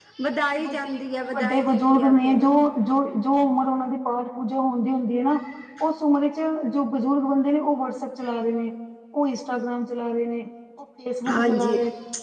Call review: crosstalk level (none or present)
present